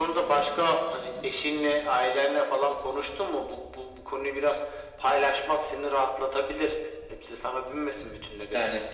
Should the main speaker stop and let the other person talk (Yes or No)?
Yes